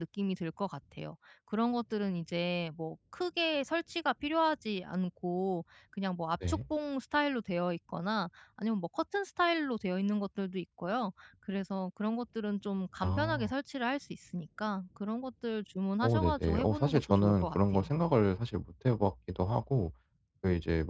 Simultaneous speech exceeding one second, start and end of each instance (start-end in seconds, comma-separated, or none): 16.0-17.9